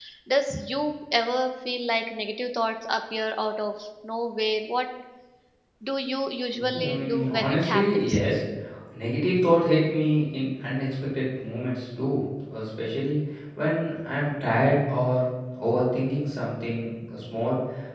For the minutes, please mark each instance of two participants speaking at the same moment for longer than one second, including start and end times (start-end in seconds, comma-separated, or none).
6.7-8.1